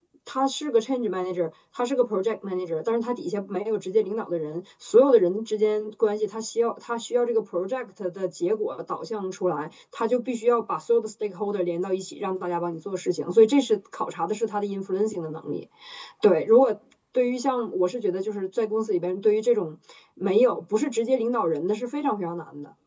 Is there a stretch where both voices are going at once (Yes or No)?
No